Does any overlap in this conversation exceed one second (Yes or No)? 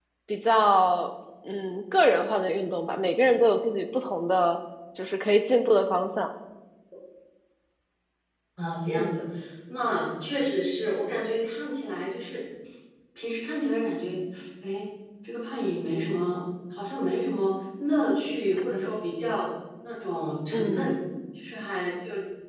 No